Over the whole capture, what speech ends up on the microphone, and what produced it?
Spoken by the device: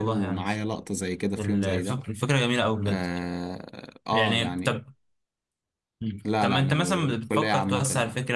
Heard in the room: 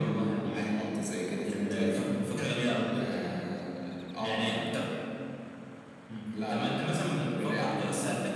echo only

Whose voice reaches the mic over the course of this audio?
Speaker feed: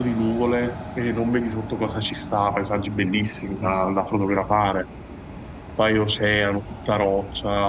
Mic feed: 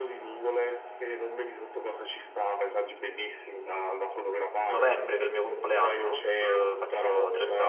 both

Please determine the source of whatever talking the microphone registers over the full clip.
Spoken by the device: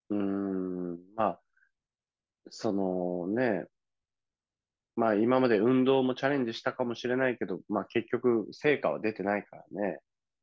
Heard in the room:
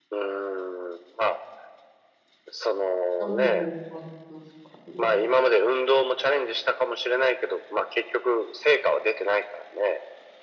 both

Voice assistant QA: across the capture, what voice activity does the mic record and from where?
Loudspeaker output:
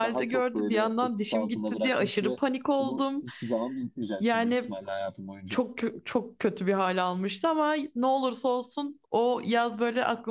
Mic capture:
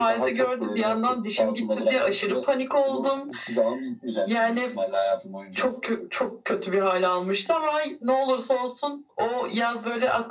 echo only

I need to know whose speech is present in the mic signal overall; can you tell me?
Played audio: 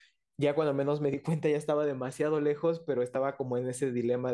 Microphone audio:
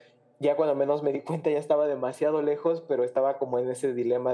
echo only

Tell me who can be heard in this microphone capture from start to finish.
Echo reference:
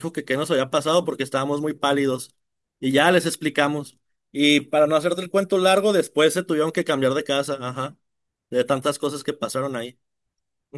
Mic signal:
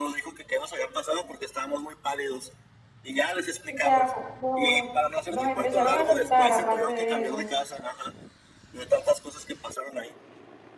both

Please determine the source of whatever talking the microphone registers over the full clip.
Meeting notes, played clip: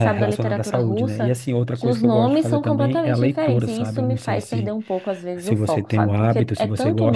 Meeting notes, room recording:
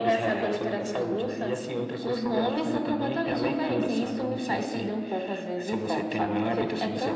echo only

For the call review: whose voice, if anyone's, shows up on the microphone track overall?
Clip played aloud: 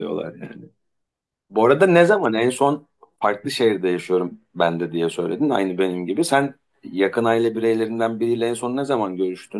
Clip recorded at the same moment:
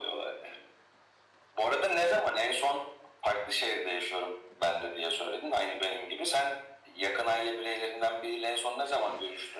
echo only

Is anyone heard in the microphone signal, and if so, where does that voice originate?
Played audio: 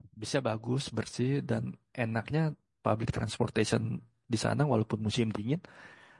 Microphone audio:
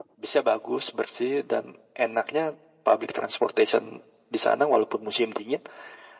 echo only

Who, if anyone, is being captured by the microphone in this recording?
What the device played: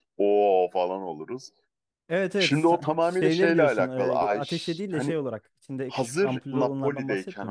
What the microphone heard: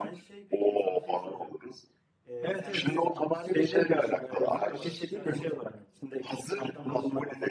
both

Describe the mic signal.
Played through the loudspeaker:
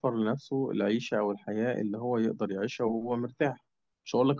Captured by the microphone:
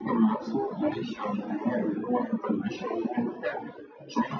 echo only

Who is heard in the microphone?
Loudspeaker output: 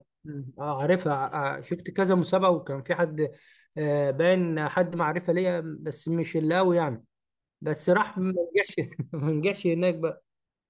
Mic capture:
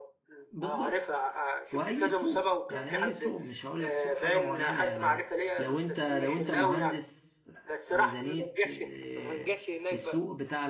both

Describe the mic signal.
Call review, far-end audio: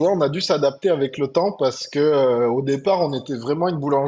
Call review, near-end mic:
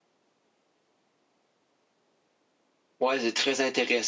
user only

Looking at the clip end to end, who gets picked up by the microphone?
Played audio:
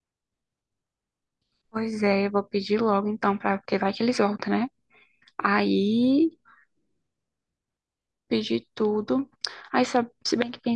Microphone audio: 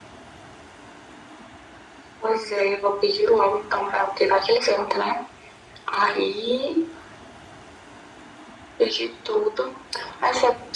echo only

